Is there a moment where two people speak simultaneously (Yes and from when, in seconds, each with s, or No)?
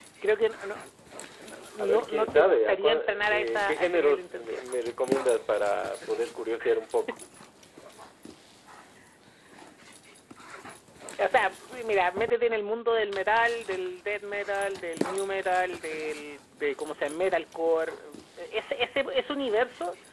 Yes, from 1.8 s